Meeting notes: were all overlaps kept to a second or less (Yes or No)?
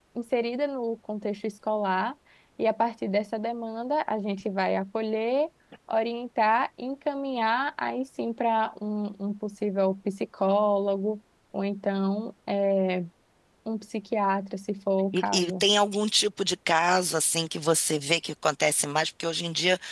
Yes